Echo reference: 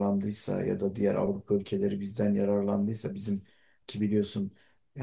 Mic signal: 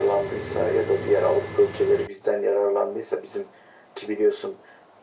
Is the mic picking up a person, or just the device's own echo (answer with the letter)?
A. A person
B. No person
B